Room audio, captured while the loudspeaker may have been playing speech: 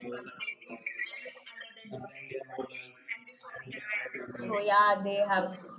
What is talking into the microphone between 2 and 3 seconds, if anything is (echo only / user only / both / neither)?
echo only